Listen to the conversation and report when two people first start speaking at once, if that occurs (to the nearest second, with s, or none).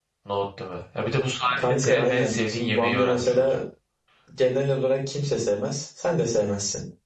1 s